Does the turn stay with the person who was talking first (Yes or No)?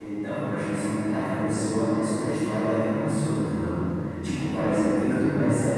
Yes